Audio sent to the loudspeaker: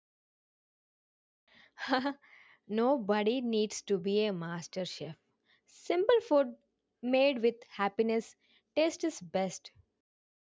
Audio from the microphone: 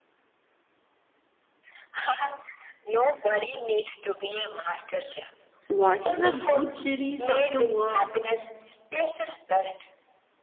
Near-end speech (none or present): present